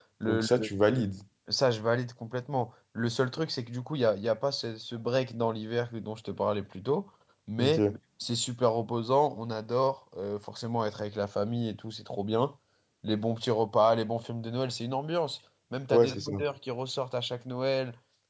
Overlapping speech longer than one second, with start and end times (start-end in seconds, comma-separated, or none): none